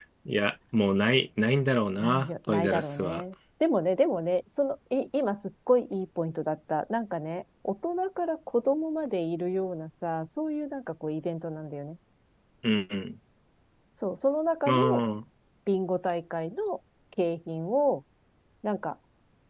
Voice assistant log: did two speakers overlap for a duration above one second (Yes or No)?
Yes